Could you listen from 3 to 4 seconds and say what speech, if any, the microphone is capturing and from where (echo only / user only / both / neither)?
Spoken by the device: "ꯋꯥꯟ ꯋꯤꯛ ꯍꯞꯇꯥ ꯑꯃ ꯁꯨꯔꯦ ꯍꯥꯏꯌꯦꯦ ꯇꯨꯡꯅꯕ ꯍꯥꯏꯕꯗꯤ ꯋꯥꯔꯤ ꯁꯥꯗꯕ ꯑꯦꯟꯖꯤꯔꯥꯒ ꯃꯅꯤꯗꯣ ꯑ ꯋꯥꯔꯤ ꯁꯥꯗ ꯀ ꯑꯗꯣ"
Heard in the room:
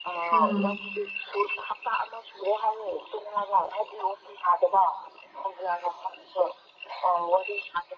echo only